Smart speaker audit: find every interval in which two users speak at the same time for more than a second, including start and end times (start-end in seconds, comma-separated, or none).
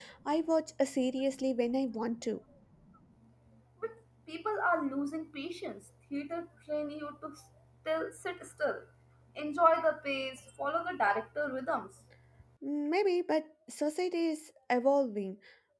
none